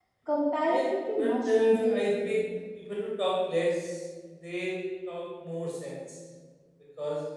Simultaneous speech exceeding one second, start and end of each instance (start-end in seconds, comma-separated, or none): 0.7-2.4